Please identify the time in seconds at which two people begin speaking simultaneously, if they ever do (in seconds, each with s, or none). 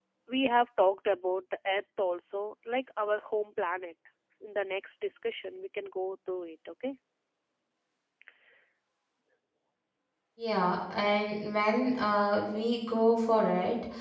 none